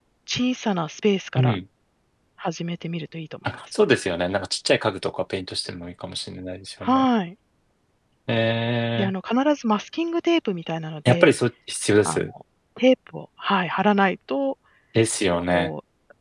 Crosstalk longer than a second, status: none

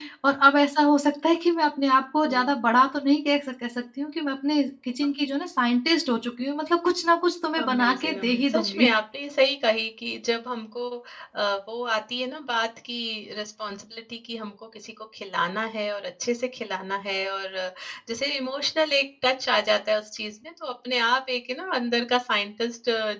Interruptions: present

